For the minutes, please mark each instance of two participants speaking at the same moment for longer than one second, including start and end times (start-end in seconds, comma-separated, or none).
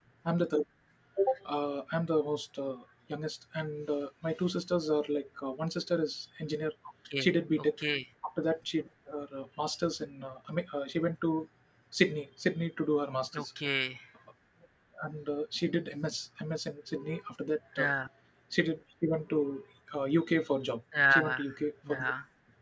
none